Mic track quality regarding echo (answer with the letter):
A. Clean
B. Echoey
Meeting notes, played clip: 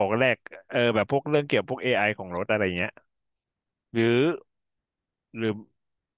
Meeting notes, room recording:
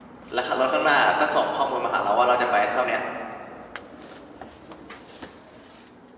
A